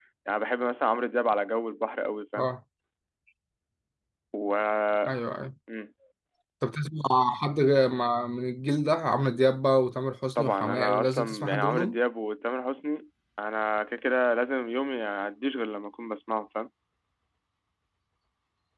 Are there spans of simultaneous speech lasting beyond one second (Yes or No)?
Yes